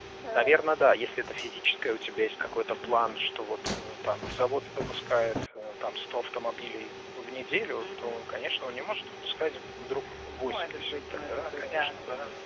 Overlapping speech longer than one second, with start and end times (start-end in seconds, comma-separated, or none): 10.4-12.0